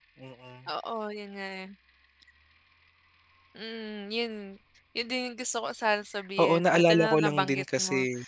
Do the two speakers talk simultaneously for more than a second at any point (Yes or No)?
Yes